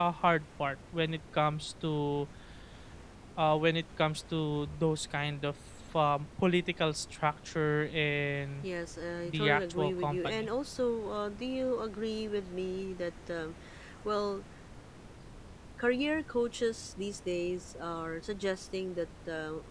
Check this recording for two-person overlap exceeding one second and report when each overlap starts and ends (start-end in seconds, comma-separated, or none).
9.2-10.5